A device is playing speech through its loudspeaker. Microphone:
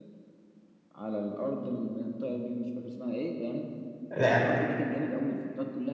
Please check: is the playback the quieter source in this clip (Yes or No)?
Yes